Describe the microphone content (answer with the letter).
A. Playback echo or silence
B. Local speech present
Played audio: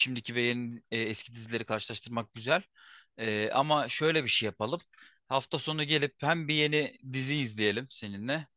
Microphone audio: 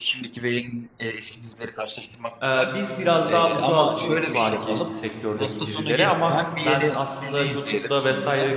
B